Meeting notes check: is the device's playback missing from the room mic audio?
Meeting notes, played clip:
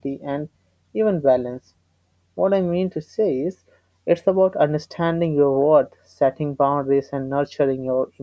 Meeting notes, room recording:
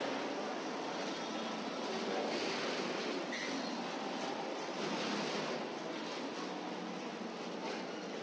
Yes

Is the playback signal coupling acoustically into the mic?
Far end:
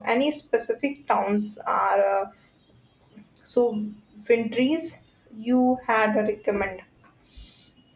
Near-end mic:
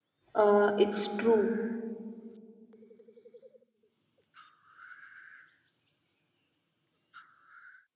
No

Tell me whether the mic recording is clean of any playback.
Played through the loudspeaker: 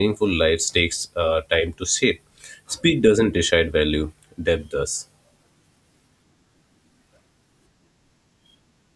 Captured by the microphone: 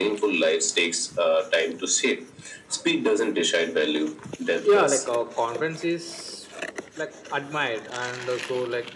No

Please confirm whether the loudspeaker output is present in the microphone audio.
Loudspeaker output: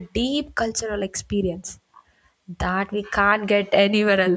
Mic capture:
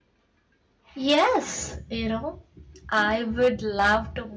No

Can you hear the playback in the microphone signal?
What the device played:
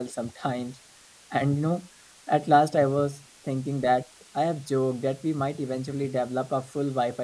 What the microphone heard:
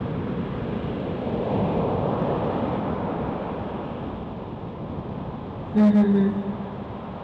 No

